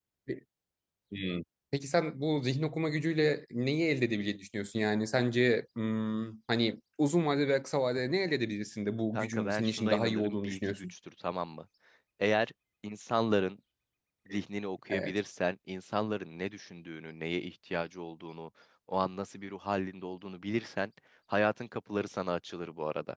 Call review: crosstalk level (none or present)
present